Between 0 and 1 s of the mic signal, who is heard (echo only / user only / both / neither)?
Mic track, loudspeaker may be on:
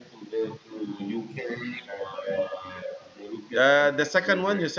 echo only